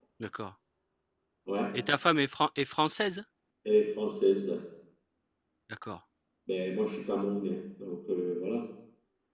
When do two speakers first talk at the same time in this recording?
none

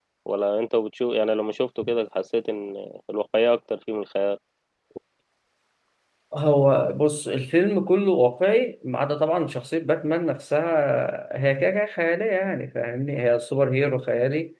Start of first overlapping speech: none

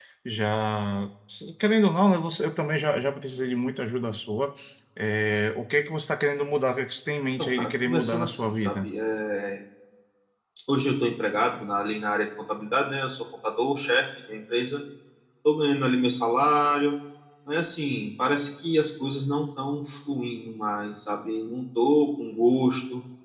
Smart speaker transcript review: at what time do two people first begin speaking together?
7 s

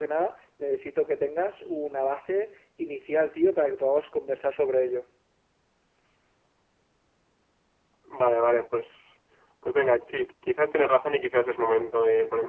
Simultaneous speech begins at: none

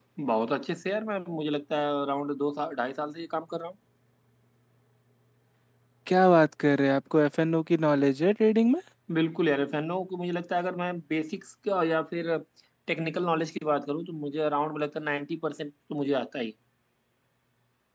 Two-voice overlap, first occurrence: none

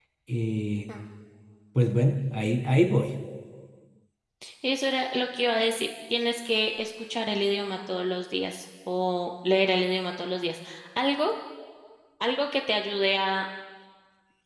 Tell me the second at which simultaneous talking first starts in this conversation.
none

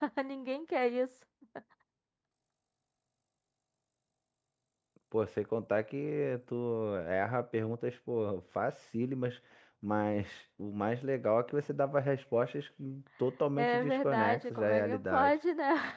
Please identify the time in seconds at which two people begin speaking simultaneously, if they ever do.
14 s

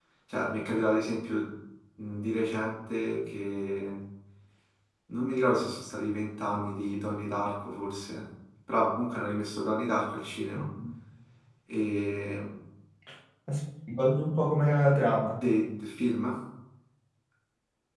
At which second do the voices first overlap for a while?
none

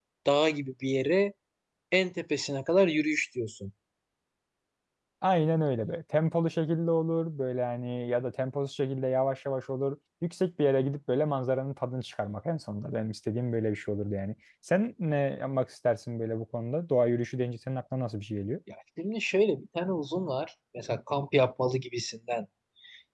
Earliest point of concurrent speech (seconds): none

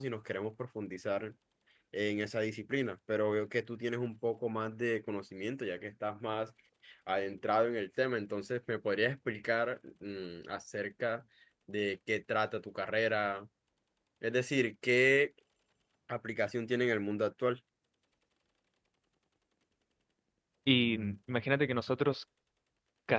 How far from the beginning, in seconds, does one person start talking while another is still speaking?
none

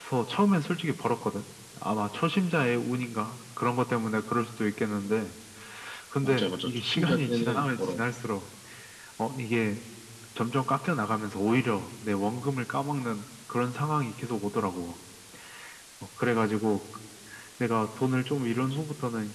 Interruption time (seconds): 6 s

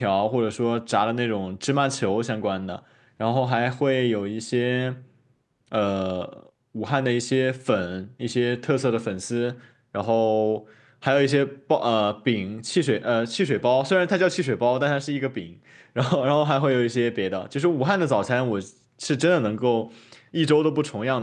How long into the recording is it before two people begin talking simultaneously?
none

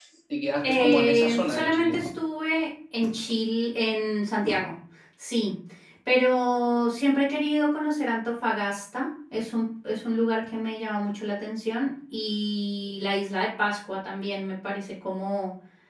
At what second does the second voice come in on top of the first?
1 s

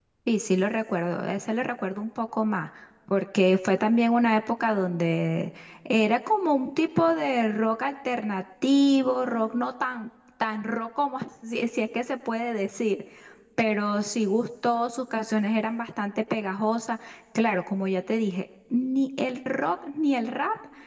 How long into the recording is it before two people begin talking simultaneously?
none

